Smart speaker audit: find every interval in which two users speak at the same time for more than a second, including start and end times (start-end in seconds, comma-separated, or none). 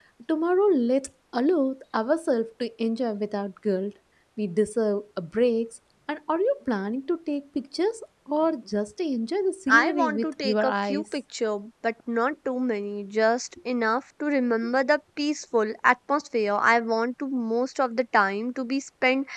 9.7-11.0